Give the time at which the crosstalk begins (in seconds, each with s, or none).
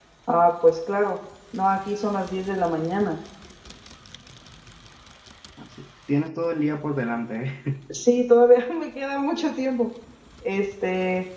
none